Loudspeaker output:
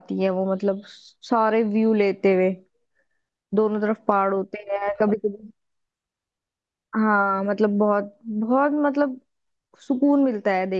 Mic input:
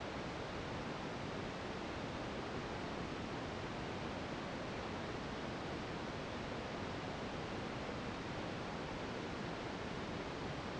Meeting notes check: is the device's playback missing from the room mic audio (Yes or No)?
Yes